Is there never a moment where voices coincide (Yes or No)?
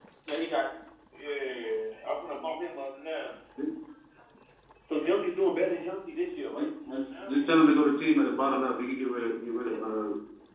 No